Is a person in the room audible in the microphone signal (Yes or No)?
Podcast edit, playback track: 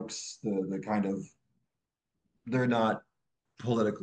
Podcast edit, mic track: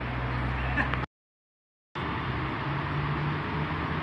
No